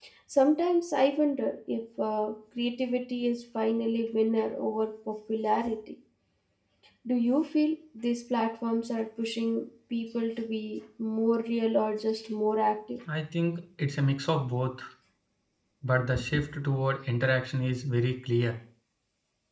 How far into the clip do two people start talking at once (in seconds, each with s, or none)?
none